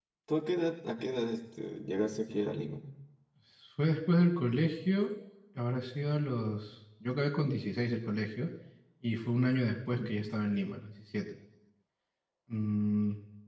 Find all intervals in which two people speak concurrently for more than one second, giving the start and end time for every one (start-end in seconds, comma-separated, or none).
none